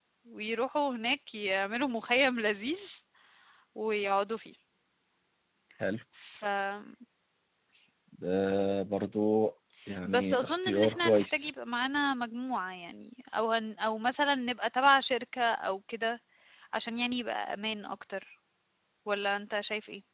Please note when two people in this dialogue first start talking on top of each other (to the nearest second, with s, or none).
10 s